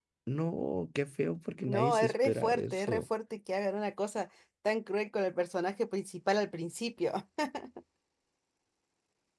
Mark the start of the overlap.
1.7 s

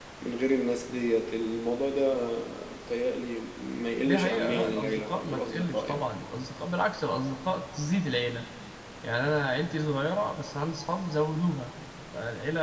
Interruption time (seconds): 4.0 s

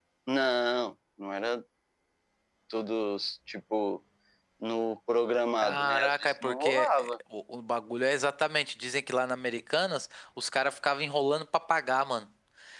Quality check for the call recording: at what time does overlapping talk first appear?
5.6 s

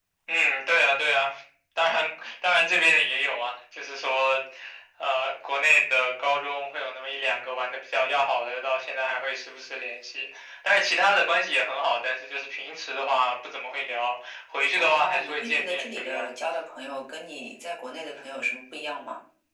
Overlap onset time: 14.8 s

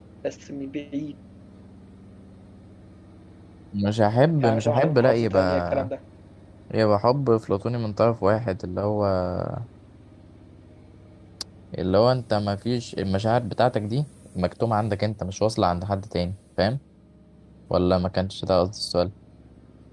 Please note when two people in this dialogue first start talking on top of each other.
4.4 s

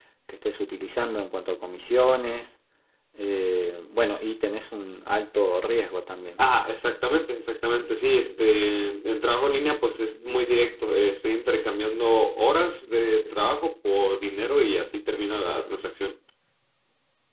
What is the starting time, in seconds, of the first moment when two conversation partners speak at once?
none

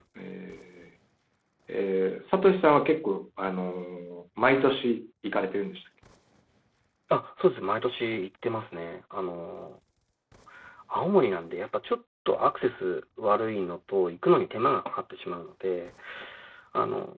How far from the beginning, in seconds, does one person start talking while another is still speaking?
none

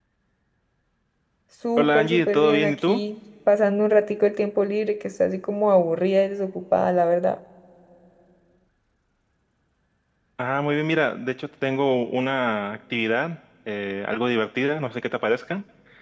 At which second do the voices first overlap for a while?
1.8 s

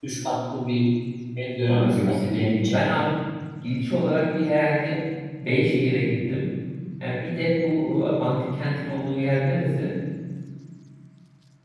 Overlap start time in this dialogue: 1.6 s

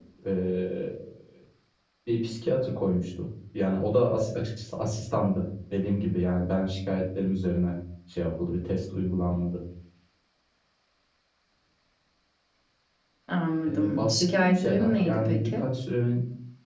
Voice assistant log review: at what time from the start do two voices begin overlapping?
13.7 s

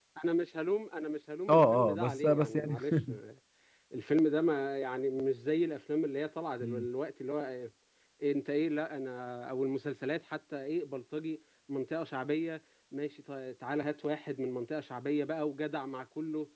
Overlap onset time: 1.5 s

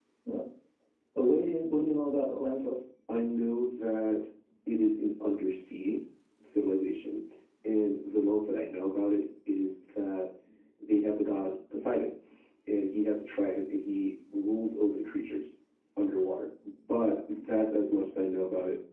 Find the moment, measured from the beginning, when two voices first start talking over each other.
none

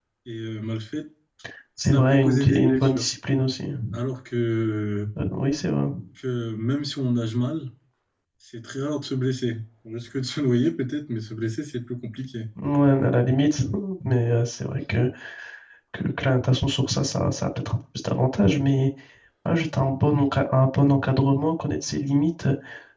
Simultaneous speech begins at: 1.8 s

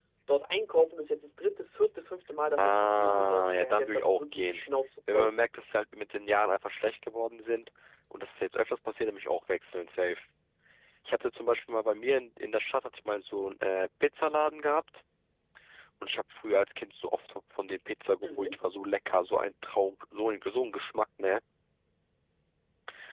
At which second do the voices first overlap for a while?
2.6 s

